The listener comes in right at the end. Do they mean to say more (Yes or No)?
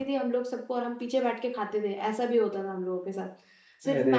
No